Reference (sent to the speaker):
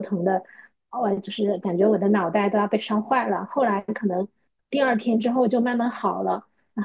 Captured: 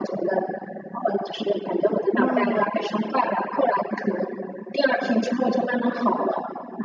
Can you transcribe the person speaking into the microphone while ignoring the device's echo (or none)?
那，